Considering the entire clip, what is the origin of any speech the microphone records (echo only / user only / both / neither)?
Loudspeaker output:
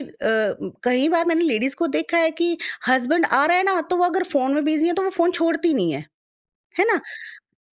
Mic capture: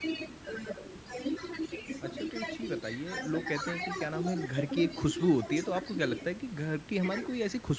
both